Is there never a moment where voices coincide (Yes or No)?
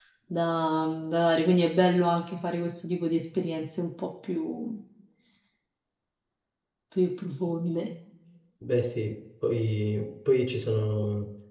Yes